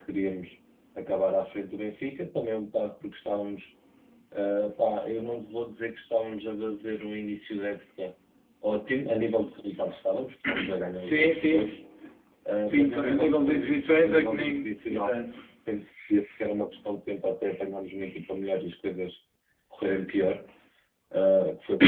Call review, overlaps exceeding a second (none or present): present